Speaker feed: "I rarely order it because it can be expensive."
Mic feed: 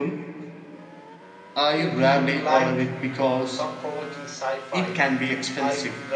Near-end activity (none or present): present